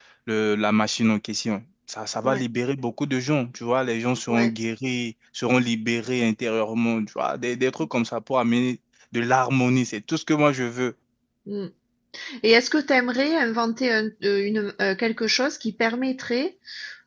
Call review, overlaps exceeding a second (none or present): none